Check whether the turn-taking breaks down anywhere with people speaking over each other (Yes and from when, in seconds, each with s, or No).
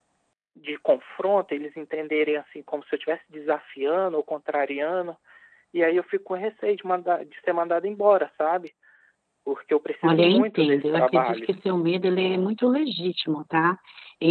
Yes, from 10.0 s